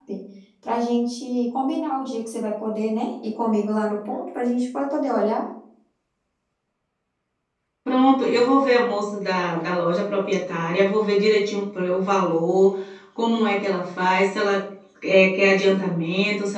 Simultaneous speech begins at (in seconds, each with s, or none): none